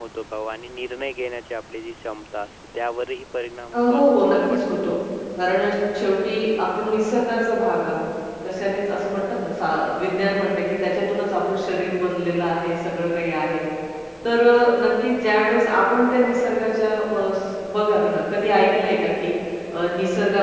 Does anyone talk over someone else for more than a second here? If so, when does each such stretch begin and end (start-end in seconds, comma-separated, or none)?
3.7-4.9